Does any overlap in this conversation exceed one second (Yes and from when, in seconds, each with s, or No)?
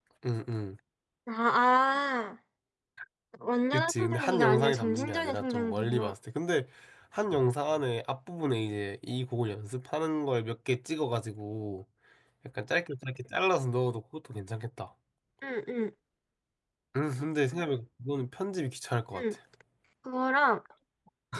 Yes, from 3.7 s